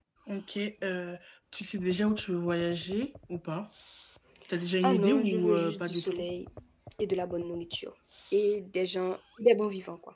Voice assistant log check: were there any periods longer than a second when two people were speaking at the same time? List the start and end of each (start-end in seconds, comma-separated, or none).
4.8-6.3